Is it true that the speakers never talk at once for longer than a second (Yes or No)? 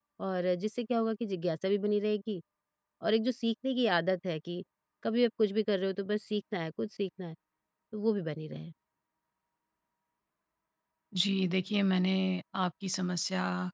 Yes